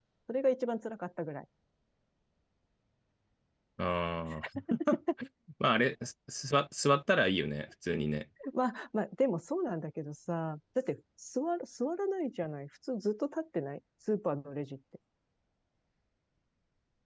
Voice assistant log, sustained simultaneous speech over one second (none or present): none